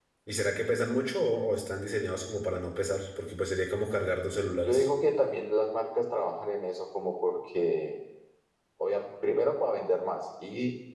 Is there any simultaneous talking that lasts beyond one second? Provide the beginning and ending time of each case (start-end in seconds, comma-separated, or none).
none